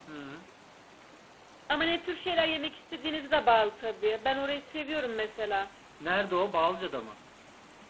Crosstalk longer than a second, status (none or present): none